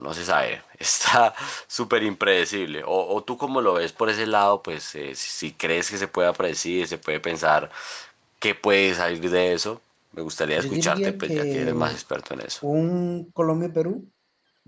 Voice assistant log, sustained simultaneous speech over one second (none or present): present